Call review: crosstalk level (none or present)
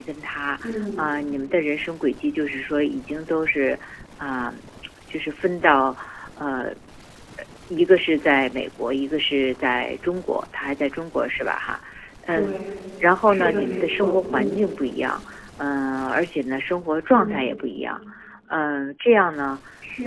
present